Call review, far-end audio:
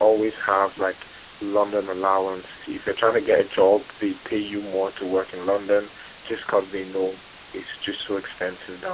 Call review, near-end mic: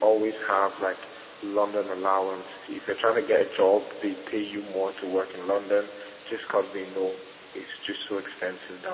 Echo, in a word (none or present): present